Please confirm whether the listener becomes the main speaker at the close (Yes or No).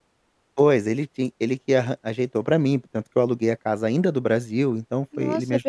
Yes